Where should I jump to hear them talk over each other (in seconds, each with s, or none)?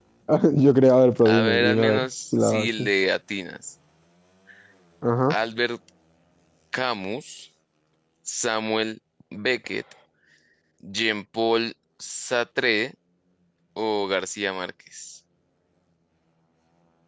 1.2 s